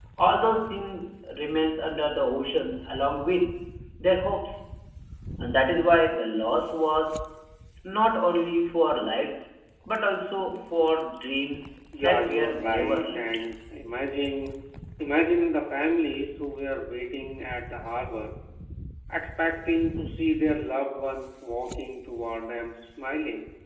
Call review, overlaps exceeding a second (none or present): present